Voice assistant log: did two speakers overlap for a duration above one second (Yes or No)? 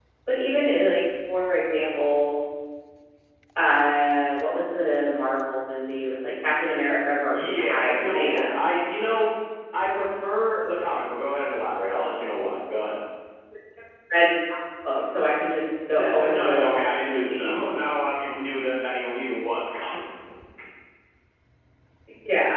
Yes